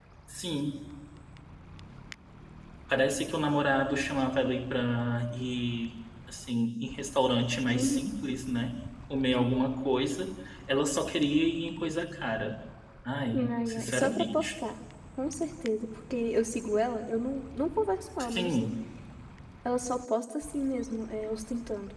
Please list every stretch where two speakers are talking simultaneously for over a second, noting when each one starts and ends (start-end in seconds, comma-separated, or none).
13.3-14.5